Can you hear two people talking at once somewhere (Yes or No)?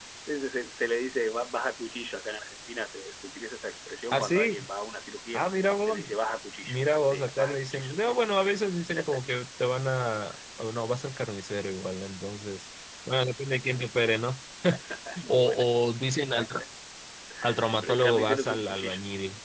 Yes